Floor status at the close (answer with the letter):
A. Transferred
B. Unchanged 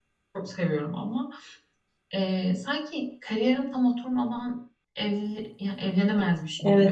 A